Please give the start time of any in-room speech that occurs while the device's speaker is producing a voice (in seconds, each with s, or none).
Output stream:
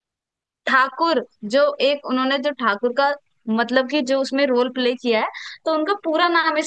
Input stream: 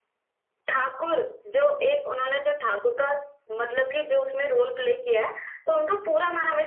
none